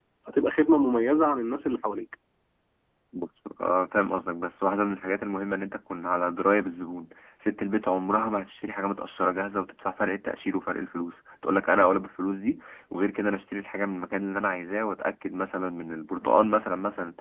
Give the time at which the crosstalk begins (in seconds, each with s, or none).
none